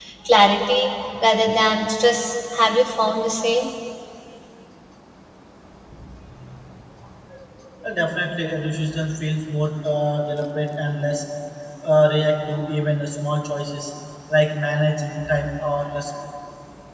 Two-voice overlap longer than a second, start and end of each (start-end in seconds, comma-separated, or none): none